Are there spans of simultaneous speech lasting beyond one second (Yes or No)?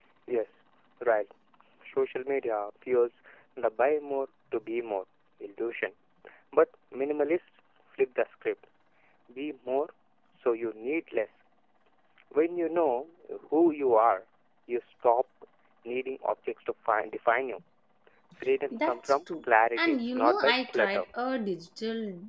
Yes